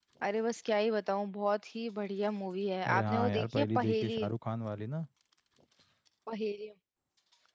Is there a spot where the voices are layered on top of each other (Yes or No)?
Yes